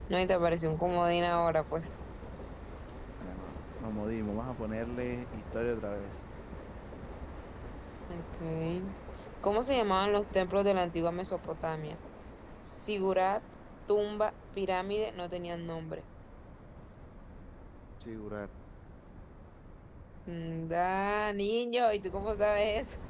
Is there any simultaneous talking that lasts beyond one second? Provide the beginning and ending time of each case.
none

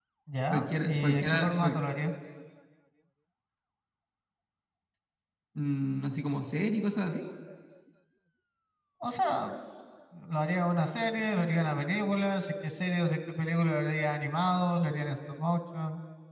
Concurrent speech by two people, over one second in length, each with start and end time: 0.5-1.8

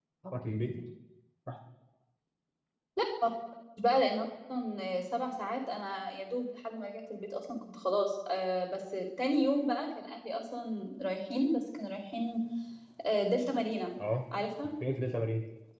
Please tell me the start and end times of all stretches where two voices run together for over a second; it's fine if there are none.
none

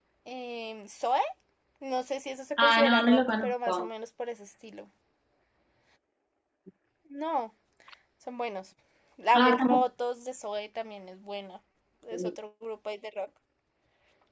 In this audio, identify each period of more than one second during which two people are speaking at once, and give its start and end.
2.6-3.9

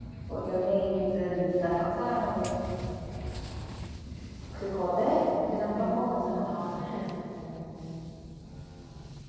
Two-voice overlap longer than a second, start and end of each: 5.5-6.8

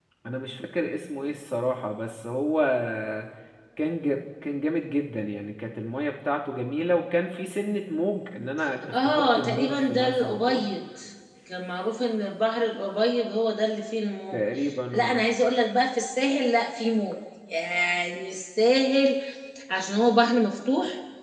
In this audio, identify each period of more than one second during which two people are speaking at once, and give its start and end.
8.9-10.6

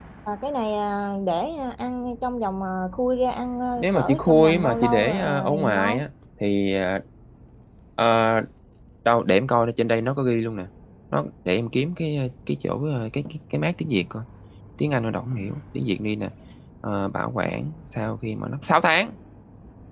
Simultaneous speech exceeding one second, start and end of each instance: 3.8-6.0

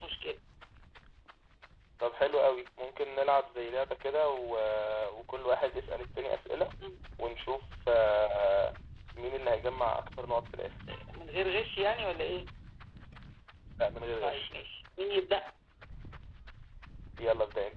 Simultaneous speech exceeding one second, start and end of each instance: none

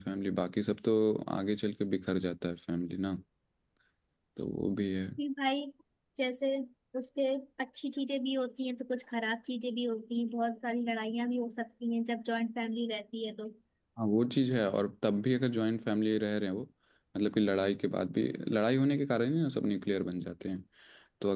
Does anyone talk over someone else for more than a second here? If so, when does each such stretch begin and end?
none

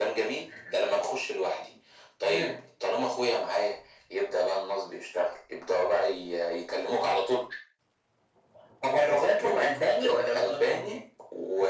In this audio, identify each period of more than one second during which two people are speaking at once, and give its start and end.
9.0-11.0

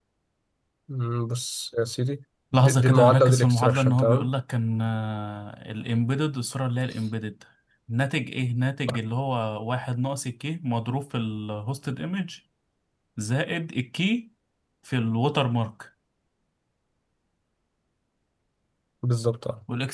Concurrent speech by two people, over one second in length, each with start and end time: 2.6-4.3

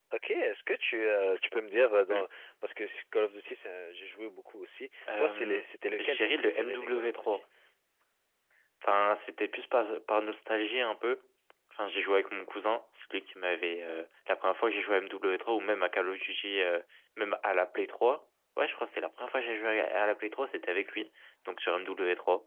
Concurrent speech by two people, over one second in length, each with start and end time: 6.0-7.4

